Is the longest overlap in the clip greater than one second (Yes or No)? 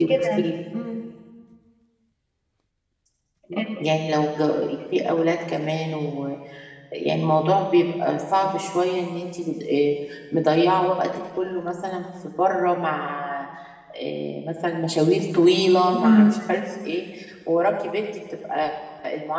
No